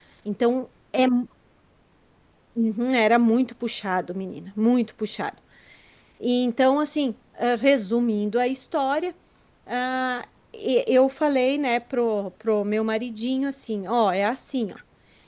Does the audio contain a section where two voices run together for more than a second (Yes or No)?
No